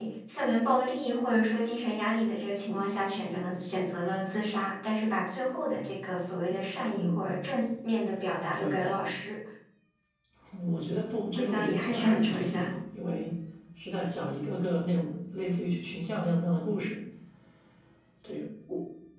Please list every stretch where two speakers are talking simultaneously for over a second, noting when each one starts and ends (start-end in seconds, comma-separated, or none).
11.3-12.7